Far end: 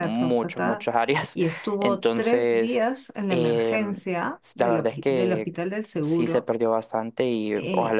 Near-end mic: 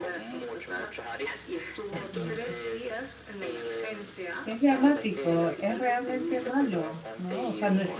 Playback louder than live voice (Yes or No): No